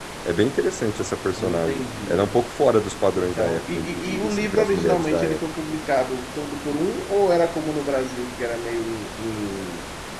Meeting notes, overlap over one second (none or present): present